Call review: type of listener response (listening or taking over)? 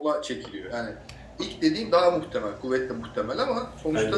listening